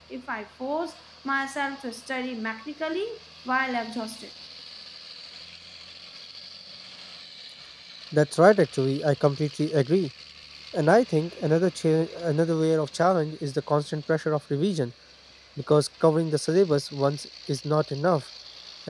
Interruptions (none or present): none